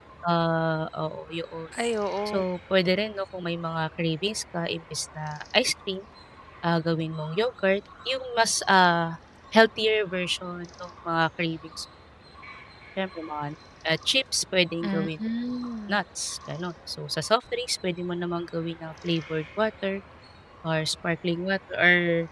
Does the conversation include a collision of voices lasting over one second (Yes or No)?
No